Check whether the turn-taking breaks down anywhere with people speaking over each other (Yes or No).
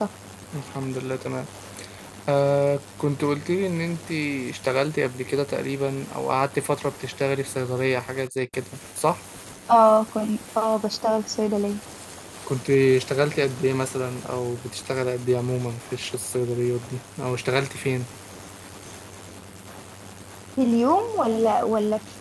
No